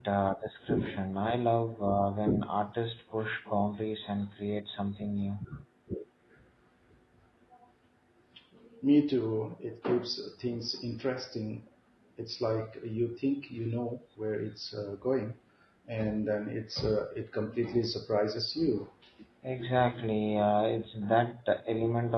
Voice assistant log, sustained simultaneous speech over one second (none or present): none